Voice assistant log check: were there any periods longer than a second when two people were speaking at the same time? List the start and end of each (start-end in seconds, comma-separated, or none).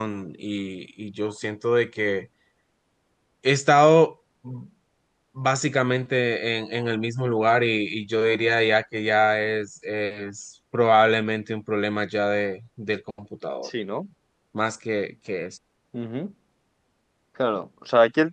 none